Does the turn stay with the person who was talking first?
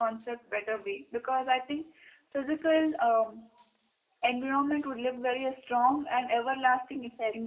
No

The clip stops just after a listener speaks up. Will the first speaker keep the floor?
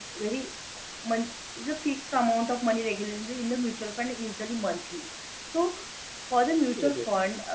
Yes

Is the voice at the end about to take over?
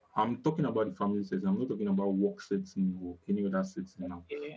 No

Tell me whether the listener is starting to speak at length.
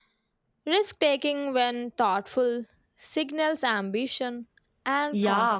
Yes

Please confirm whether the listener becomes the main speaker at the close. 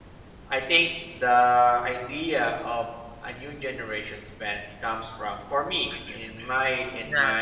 No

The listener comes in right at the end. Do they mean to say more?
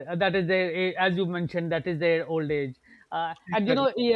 No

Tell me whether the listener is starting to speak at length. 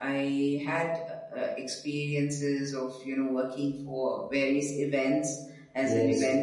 No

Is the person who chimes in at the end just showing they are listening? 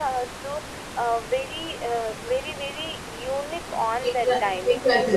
No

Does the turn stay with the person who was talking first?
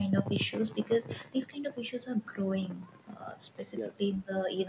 Yes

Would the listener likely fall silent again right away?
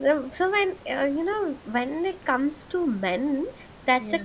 Yes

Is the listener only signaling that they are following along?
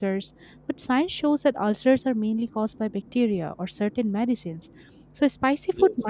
Yes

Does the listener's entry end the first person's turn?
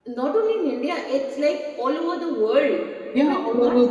Yes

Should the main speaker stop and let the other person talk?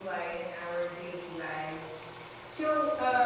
No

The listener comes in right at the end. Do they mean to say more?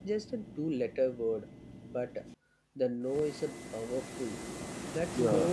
No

